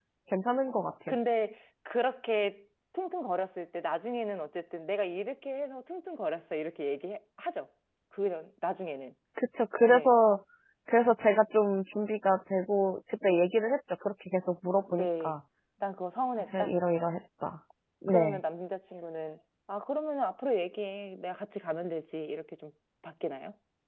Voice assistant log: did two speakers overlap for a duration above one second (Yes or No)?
No